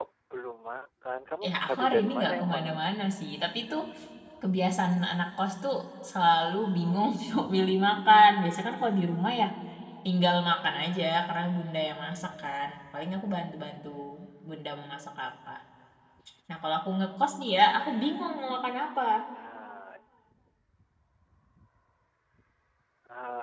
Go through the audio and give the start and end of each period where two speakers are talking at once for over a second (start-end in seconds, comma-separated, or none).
1.4-2.8